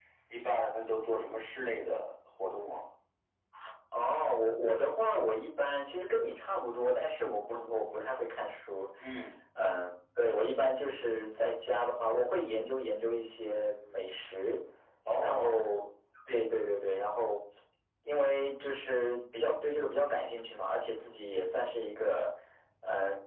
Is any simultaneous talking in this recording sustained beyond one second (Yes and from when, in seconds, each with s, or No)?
No